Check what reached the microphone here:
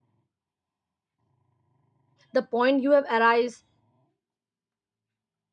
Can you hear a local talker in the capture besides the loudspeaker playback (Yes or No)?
Yes